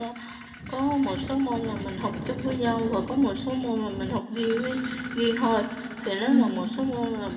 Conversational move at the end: listening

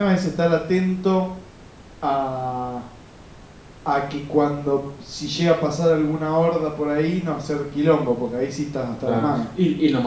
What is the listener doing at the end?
taking over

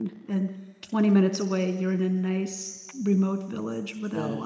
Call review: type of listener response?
taking over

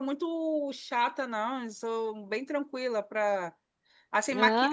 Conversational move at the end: listening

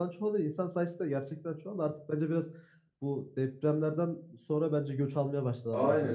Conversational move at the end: taking over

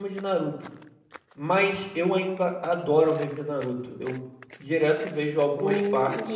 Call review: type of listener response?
taking over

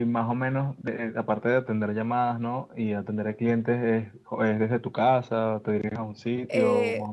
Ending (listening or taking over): taking over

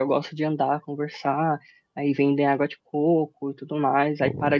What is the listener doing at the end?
listening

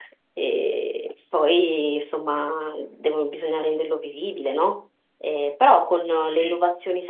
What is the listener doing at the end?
listening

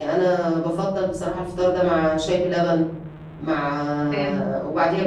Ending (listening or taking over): listening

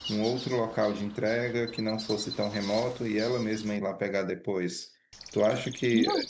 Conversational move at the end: listening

